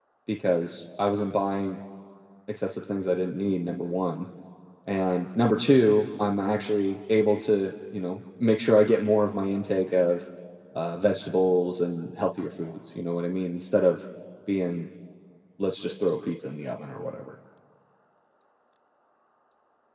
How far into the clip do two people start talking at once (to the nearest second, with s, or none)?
none